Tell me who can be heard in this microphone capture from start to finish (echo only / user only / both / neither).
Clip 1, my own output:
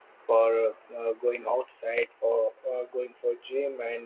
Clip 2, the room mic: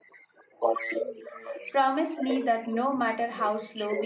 both